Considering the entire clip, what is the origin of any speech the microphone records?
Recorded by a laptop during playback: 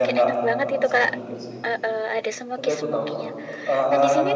both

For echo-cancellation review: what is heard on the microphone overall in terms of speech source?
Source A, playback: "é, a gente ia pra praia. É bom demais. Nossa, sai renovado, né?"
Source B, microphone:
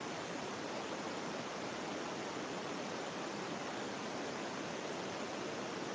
neither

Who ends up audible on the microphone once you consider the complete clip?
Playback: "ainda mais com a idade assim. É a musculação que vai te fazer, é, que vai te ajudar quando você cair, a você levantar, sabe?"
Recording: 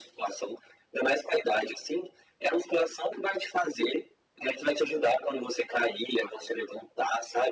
echo only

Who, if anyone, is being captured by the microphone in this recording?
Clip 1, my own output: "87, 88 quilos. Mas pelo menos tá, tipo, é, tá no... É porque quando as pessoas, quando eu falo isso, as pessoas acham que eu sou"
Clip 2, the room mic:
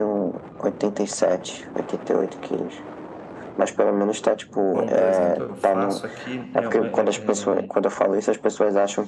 both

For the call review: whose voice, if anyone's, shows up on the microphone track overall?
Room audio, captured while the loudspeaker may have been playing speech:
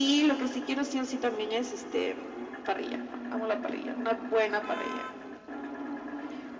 echo only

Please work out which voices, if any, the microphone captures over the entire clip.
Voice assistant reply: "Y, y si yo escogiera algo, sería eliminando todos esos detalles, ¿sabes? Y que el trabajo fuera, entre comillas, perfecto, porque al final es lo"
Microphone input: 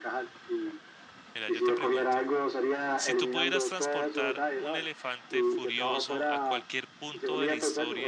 both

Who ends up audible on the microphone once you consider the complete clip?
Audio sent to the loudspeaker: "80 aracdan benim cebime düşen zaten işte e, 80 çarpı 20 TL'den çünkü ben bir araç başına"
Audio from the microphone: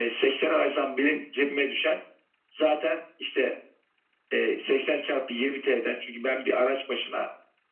echo only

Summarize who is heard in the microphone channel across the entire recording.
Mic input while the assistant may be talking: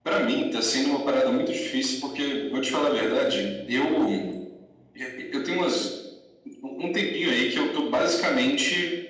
echo only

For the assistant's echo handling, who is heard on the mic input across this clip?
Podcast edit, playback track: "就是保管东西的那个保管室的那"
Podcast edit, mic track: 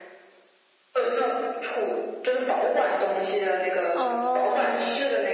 both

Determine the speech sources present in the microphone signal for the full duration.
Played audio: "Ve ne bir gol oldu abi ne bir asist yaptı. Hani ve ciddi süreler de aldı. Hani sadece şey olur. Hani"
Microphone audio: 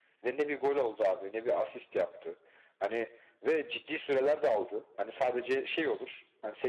echo only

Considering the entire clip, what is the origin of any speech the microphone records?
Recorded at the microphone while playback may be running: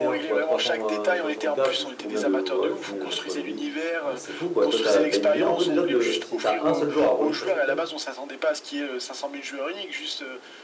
both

